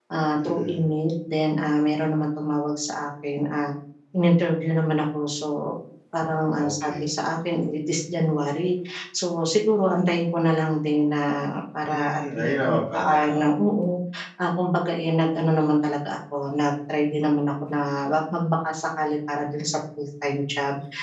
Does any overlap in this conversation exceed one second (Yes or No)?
Yes